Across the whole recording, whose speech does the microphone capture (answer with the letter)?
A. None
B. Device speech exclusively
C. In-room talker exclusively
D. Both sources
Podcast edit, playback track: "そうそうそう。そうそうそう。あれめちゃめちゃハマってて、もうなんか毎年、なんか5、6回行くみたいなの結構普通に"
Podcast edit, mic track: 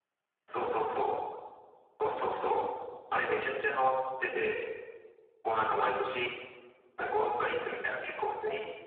B